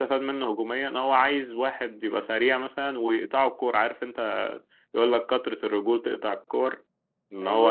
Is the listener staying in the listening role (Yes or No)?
Yes